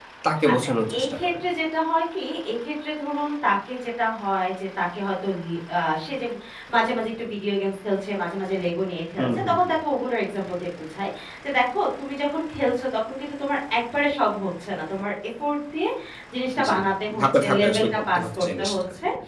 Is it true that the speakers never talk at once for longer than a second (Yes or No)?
No